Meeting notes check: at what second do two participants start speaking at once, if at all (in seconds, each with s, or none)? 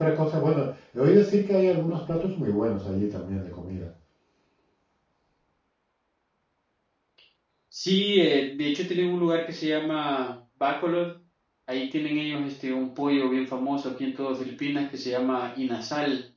none